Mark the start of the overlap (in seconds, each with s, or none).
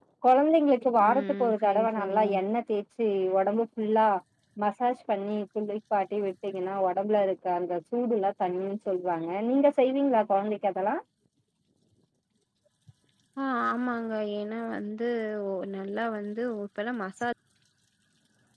1.0 s